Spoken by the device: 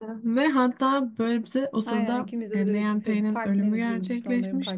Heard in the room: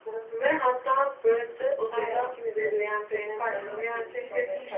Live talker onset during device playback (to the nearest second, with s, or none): 4 s